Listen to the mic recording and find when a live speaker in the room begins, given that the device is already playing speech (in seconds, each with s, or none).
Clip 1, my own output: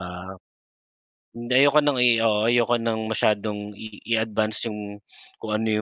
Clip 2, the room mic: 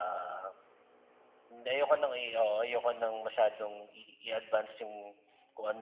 none